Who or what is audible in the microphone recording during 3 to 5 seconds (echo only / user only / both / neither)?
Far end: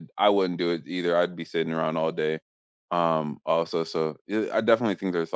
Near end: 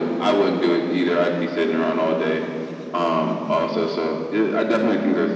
echo only